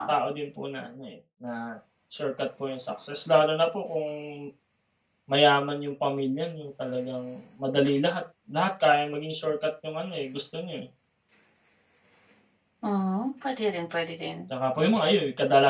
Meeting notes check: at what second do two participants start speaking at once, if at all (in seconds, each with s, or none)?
none